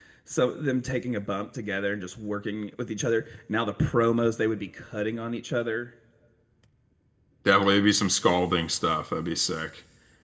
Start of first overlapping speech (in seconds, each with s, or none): none